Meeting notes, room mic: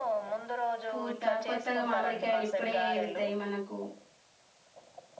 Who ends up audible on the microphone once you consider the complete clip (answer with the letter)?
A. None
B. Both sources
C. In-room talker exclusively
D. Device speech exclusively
B